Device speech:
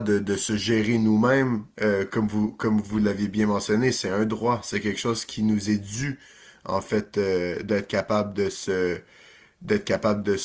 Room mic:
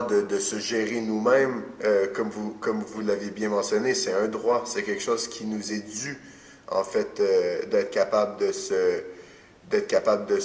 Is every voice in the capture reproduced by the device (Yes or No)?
Yes